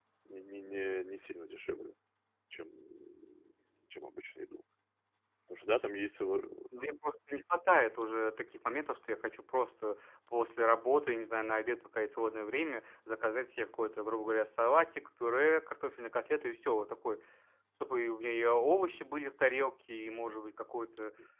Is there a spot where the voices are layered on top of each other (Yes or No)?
No